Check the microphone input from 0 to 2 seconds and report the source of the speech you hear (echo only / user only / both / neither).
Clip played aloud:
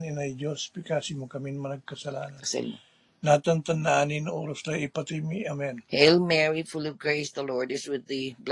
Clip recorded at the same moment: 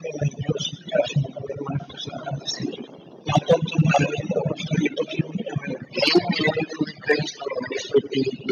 echo only